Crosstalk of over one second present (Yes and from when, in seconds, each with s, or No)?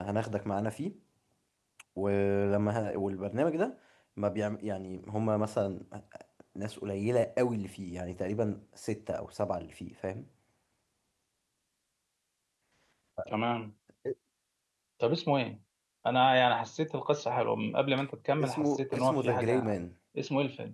Yes, from 18.4 s